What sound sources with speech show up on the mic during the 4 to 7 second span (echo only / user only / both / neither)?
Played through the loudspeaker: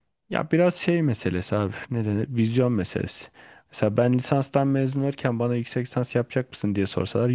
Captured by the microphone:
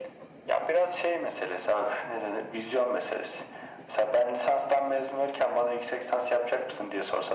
echo only